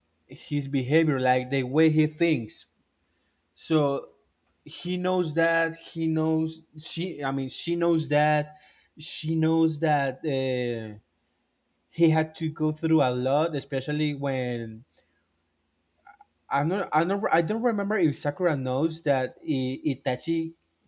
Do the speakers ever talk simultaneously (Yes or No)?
No